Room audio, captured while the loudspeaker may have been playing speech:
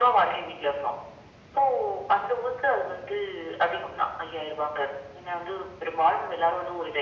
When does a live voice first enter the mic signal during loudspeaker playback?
none

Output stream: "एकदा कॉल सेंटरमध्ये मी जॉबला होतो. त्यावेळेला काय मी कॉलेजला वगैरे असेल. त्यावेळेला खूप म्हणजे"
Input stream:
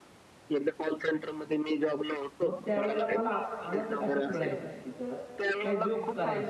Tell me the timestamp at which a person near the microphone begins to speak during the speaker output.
2.4 s

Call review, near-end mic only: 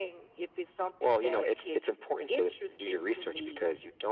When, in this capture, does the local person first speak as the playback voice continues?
none

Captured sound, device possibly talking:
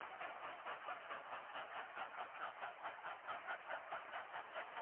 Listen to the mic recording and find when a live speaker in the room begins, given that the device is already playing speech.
none

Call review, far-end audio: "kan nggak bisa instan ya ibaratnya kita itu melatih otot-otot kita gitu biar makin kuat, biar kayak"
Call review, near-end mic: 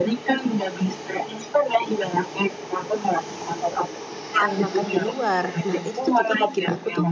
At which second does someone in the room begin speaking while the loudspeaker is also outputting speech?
4.4 s

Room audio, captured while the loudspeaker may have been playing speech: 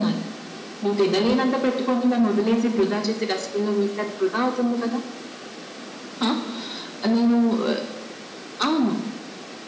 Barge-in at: none

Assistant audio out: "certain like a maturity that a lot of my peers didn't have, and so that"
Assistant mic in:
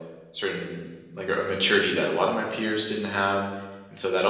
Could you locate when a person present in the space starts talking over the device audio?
none

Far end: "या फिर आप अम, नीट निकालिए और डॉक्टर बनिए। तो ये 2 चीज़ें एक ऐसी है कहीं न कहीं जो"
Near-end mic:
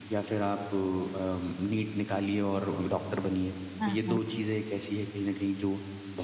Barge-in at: 3.8 s

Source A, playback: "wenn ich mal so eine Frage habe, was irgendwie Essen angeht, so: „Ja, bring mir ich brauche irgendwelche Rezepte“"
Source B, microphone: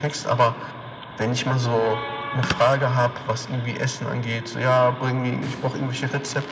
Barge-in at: none

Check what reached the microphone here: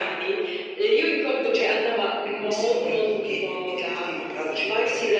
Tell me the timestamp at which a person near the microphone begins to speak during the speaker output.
none

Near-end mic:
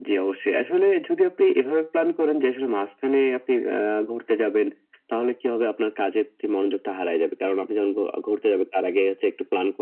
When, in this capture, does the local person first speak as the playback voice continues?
none

